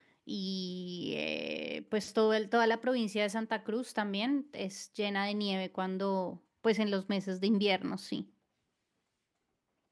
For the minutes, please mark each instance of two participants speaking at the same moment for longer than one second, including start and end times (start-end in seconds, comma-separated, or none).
none